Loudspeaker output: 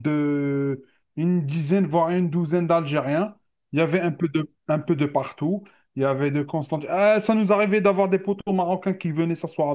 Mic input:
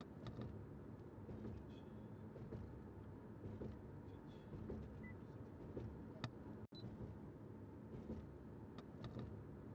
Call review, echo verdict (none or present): none